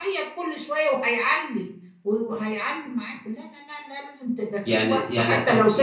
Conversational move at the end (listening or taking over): taking over